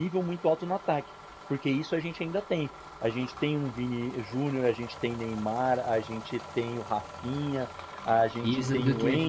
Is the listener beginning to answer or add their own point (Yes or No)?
Yes